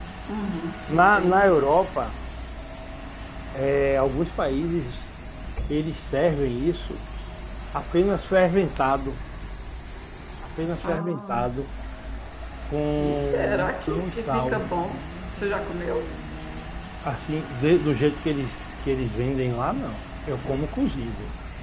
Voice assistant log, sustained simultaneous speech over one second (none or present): present